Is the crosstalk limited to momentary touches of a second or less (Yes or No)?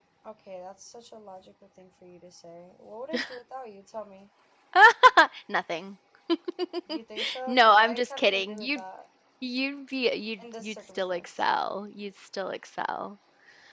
No